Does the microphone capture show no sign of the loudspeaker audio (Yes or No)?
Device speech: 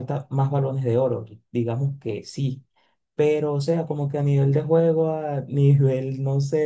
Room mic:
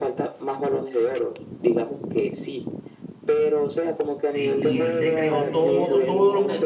No